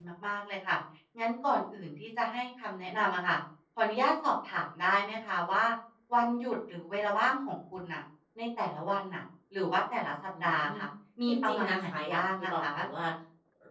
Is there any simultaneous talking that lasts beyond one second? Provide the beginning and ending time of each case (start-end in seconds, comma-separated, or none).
11.3-12.6